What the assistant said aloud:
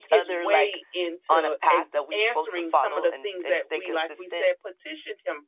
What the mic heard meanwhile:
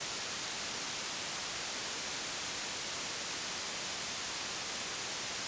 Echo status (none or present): none